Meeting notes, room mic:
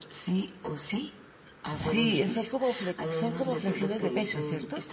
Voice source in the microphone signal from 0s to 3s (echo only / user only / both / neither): both